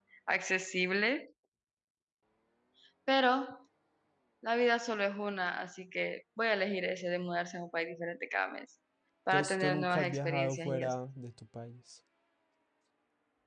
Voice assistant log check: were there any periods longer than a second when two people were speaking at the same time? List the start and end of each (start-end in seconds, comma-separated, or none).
9.3-11.0